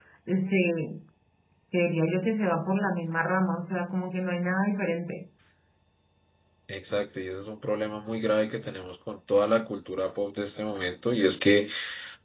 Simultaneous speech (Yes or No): No